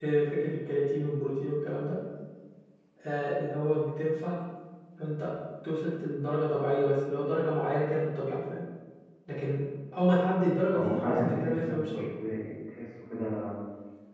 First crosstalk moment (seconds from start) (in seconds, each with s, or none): 10.7 s